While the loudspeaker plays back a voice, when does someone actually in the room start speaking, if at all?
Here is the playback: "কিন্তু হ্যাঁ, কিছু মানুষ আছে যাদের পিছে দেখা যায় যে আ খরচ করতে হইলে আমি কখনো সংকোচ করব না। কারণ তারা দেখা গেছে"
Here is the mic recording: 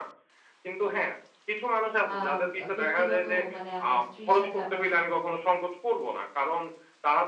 2.1 s

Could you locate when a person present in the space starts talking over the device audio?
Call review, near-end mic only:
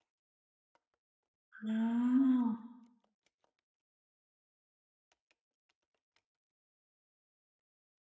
1.6 s

